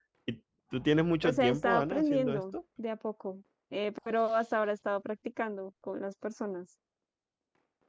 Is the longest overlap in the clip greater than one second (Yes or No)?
Yes